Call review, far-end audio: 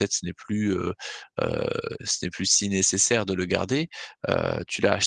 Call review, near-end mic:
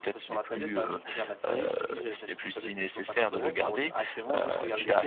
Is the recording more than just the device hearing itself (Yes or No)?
Yes